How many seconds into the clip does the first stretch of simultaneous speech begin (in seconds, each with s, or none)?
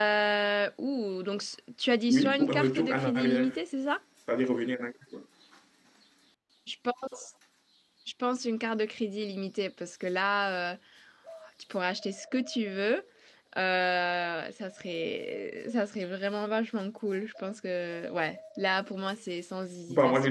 2.1 s